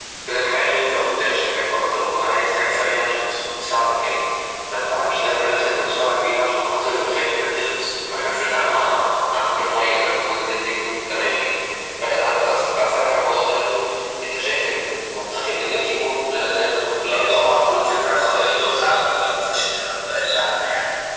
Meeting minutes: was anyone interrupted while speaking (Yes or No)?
Yes